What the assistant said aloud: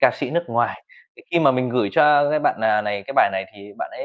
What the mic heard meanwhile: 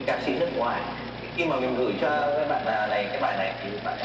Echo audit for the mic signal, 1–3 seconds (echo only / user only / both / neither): echo only